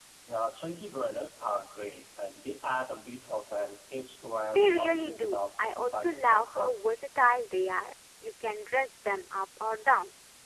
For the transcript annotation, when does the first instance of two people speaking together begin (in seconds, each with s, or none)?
4.5 s